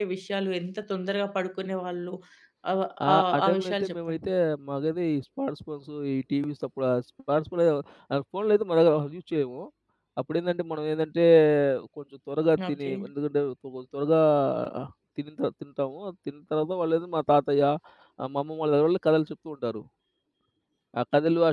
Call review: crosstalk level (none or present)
present